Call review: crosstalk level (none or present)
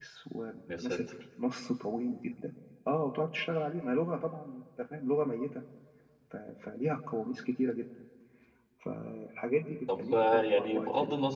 present